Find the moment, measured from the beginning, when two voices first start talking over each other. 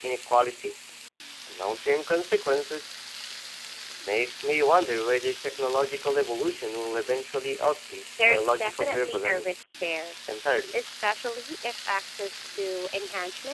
8.2 s

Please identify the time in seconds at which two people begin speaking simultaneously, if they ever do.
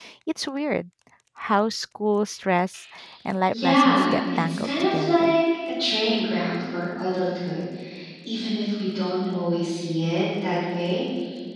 3.5 s

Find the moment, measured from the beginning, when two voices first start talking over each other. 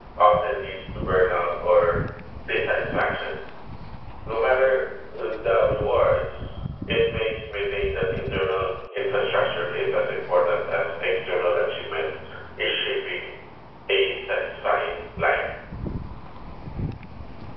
none

